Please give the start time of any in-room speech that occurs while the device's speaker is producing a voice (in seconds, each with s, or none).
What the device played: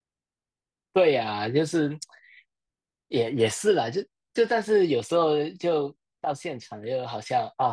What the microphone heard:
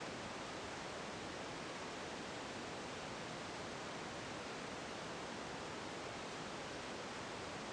none